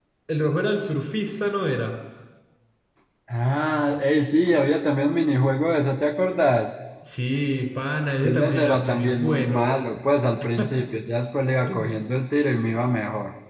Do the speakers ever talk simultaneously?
Yes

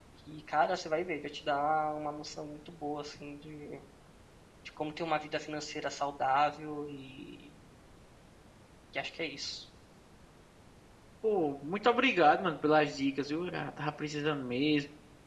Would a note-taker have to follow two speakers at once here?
No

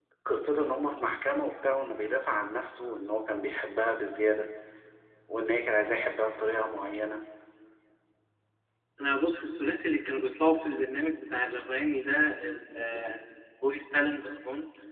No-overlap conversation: Yes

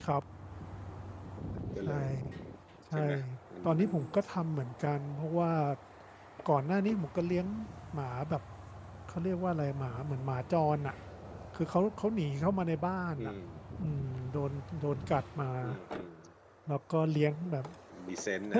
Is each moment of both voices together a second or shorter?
Yes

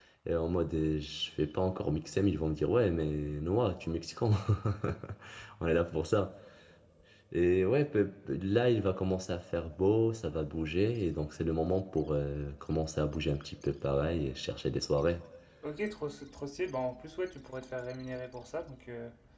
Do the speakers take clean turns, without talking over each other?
Yes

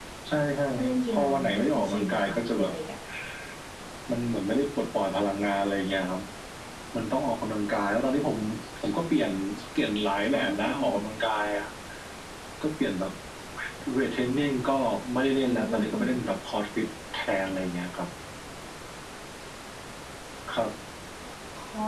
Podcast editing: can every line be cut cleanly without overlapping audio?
No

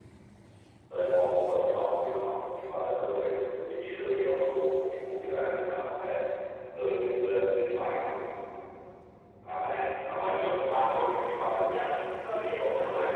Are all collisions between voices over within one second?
No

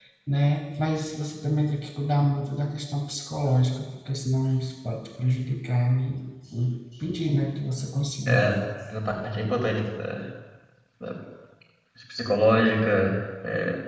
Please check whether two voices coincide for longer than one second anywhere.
No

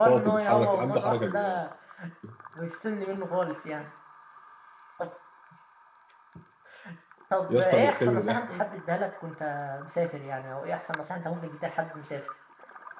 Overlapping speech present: Yes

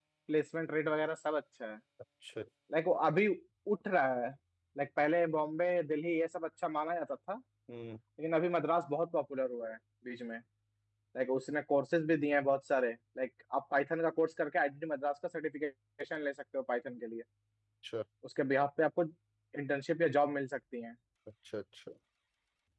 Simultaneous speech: No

